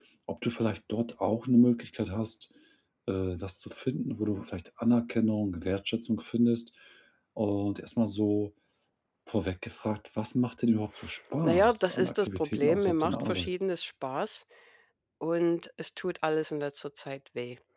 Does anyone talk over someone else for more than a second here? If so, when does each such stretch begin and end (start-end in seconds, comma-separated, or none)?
11.4-13.5